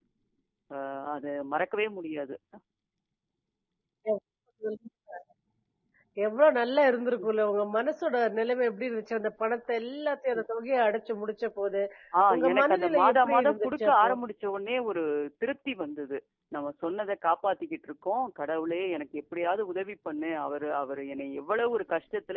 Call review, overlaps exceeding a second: present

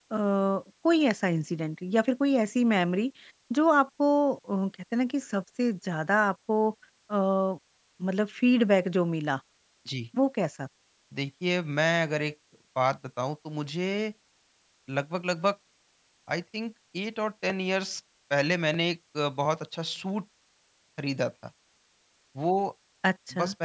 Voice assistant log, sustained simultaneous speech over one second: none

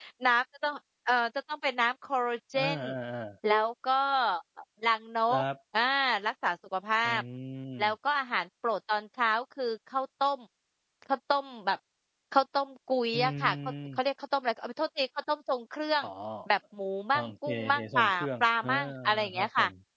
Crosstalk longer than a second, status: present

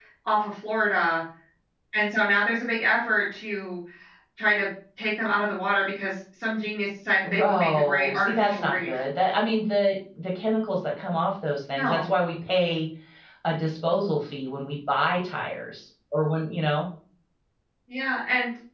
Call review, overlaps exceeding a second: present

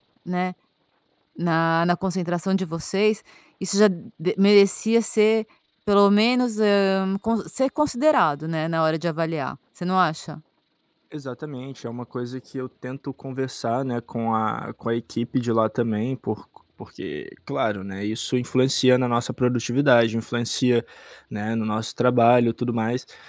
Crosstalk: none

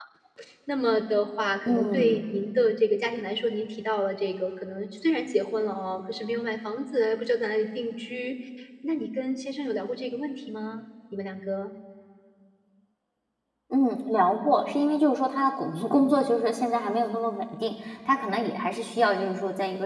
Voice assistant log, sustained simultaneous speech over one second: none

